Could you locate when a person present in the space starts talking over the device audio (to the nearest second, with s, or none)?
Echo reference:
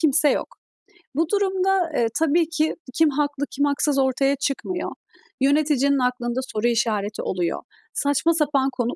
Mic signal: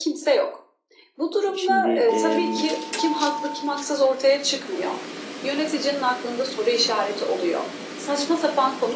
2 s